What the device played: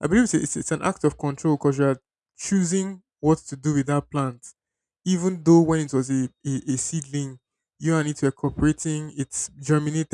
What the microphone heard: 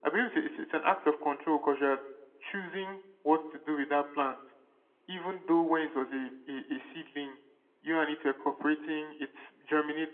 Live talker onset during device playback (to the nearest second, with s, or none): none